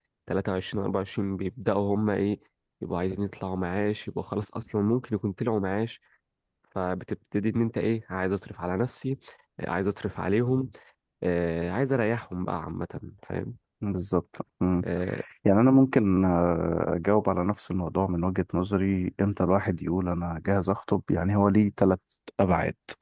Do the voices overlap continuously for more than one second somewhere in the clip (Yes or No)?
No